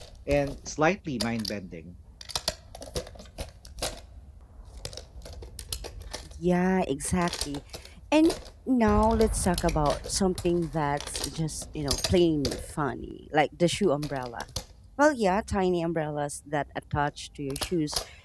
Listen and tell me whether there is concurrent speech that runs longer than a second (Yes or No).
No